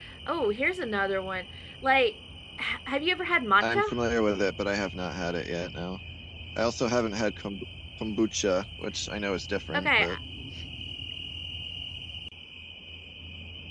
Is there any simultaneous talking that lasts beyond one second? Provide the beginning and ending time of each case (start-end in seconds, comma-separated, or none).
none